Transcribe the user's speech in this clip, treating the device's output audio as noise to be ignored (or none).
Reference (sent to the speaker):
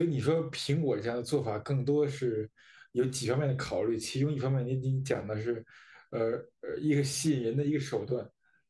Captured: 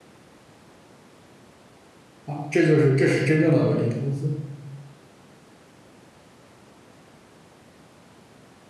啊，这就是这是真正的伦理投资。